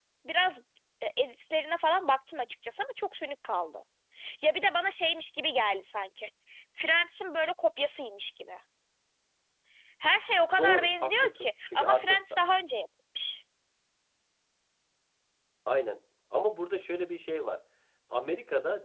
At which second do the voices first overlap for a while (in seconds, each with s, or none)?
10.6 s